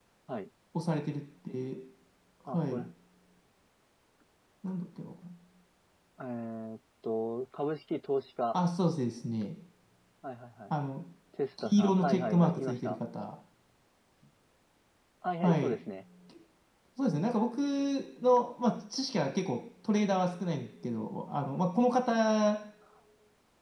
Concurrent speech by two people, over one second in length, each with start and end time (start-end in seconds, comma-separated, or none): 11.6-13.0